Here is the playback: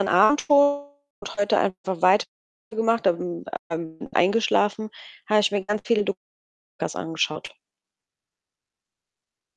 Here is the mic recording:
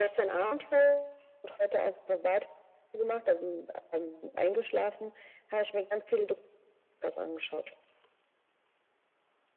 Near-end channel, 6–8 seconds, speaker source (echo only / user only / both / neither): echo only